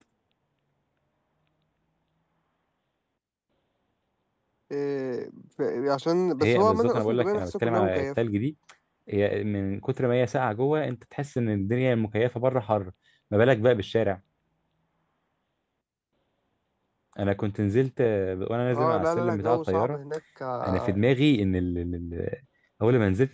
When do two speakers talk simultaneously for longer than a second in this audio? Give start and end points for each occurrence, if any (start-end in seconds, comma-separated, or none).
6.4-8.1, 18.7-20.0